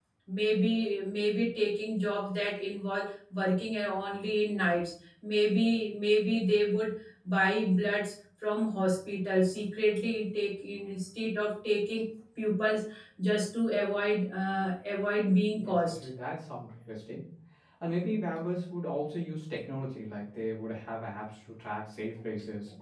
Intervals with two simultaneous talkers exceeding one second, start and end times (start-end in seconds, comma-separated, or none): none